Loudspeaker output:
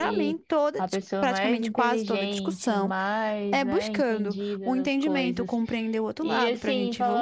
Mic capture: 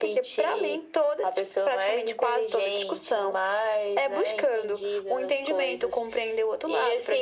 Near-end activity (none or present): none